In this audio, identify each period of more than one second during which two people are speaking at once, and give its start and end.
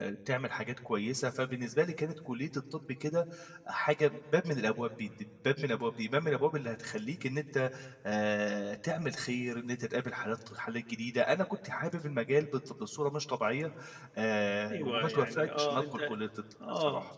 14.7-16.1

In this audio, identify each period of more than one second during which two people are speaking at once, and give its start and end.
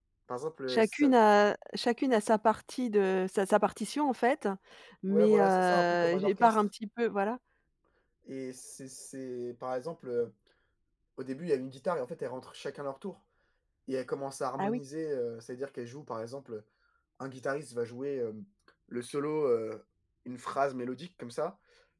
5.1-6.7

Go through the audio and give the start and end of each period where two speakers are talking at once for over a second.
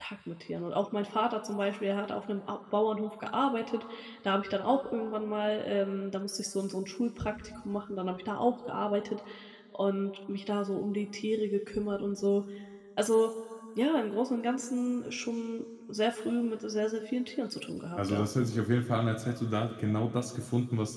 none

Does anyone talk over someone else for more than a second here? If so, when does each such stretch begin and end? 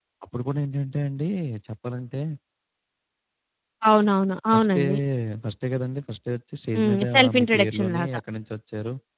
6.8-8.2

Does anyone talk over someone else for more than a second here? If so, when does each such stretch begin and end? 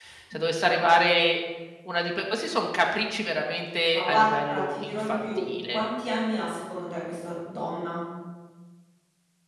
3.9-5.8

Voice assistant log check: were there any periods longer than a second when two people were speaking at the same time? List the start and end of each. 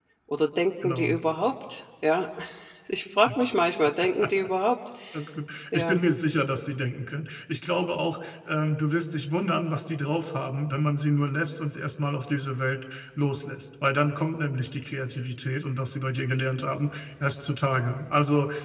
none

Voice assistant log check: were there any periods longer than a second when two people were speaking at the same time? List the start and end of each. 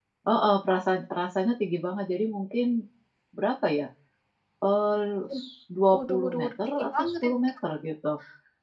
5.9-7.3

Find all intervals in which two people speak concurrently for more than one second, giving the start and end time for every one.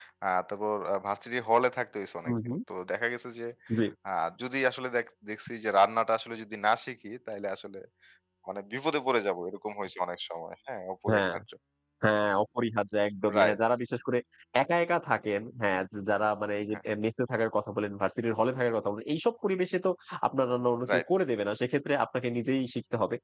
none

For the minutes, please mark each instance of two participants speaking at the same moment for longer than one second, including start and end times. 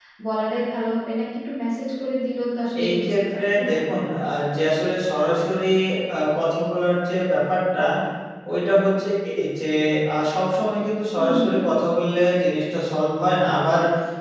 2.8-4.1

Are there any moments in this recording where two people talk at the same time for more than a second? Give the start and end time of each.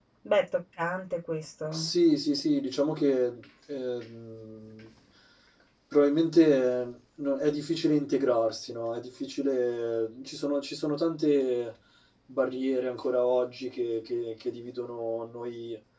none

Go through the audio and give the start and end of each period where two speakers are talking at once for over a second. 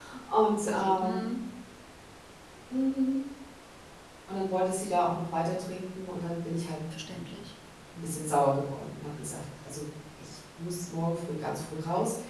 none

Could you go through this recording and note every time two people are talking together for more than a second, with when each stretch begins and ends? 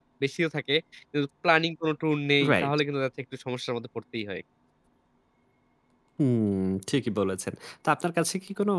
none

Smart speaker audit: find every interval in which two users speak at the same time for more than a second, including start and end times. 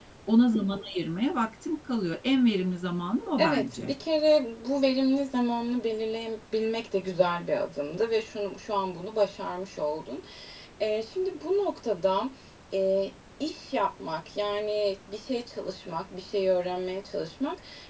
none

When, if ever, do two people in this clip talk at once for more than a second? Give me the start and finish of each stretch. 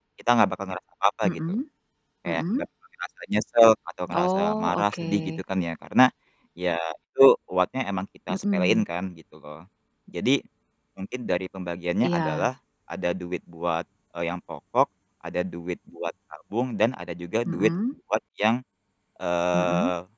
4.1-5.4

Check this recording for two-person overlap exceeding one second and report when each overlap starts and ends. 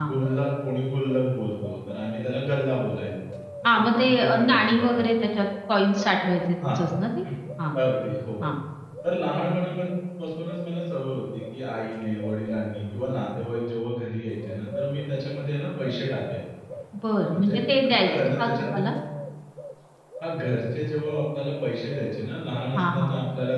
3.7-5.0, 17.3-18.9

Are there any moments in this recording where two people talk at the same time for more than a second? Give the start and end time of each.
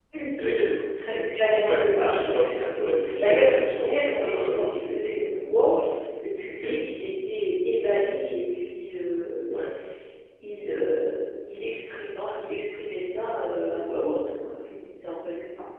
1.6-2.8, 3.2-5.0

